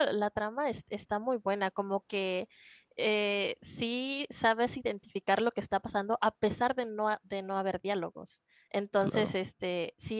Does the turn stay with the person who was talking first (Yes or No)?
Yes